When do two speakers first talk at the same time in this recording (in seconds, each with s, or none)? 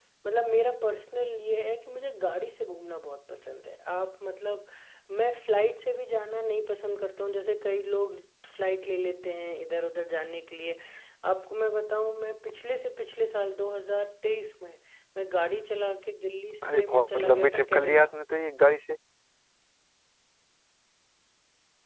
16.6 s